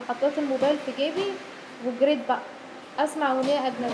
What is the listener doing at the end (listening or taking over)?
listening